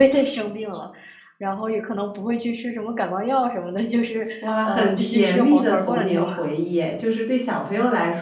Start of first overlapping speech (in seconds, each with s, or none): 4.6 s